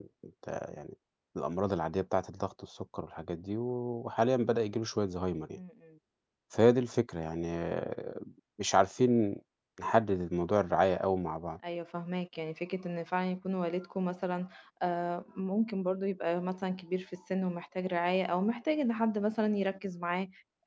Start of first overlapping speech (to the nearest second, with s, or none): none